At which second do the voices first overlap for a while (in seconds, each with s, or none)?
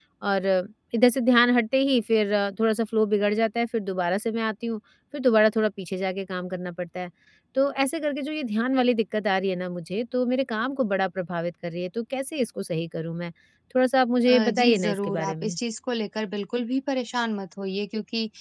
14.3 s